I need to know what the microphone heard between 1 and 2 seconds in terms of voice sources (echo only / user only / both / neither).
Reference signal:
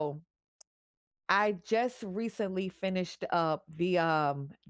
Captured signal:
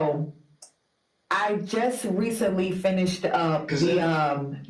echo only